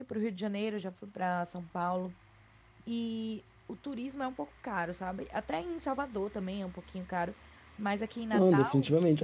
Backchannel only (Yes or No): No